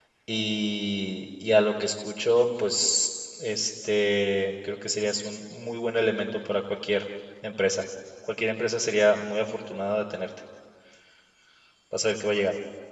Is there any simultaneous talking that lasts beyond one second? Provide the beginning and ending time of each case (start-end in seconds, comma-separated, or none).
none